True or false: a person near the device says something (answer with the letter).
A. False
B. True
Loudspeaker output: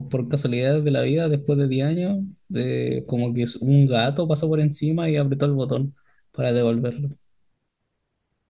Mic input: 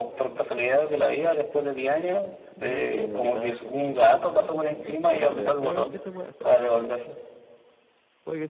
B